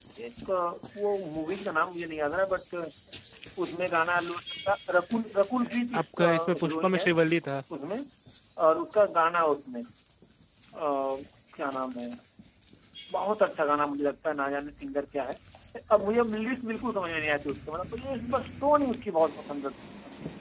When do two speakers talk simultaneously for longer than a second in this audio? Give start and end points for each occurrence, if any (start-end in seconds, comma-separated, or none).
5.6-7.1